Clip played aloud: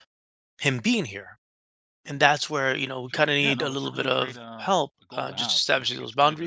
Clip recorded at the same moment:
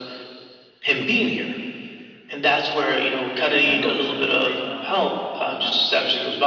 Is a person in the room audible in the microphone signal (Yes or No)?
No